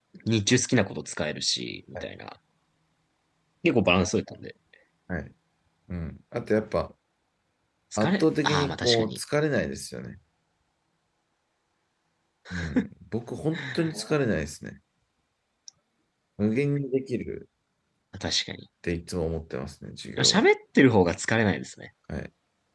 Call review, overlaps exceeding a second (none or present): present